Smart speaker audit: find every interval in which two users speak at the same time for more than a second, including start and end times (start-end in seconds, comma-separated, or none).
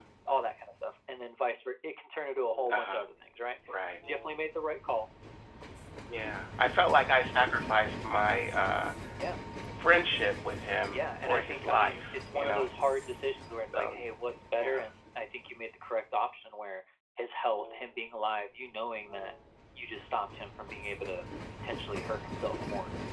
10.9-12.7